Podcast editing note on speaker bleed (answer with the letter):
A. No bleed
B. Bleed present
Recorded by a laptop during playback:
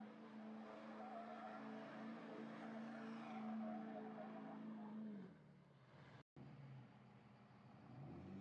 A